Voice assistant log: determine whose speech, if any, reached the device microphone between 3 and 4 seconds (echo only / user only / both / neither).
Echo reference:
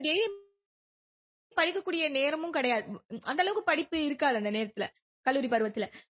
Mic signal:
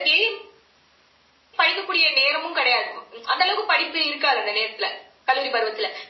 echo only